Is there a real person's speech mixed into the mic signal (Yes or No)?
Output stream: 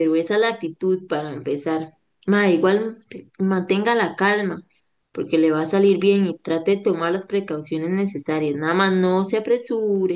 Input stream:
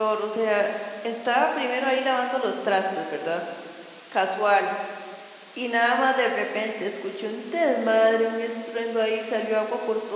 Yes